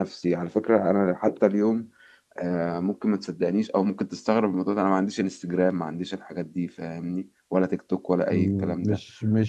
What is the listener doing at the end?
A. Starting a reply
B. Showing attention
A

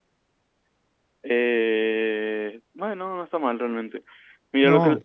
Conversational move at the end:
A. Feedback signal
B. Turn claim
A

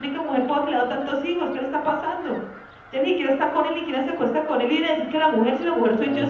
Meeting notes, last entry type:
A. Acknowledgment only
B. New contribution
B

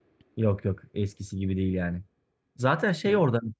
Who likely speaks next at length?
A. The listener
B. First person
B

